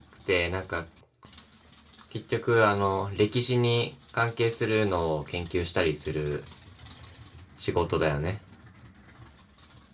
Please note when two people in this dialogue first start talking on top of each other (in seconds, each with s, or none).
none